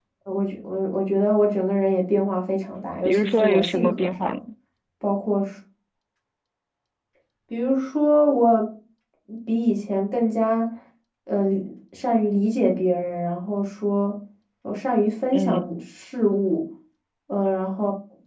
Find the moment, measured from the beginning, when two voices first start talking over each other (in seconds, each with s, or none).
3.0 s